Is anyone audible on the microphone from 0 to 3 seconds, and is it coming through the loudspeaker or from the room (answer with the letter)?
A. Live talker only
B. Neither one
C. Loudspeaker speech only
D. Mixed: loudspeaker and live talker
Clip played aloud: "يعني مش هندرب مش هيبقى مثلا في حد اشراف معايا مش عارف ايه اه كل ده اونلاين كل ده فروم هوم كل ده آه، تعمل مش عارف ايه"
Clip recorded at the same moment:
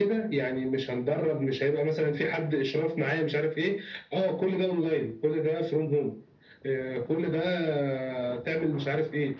C